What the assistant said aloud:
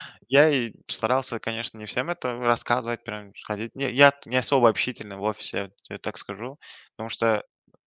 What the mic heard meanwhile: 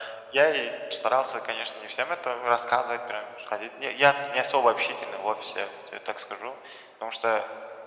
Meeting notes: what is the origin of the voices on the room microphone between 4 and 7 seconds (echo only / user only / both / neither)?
echo only